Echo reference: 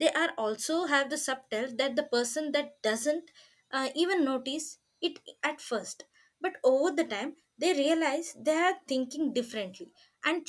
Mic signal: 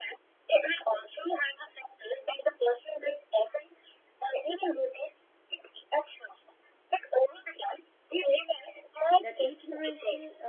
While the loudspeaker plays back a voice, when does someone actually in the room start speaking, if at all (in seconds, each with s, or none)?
9.2 s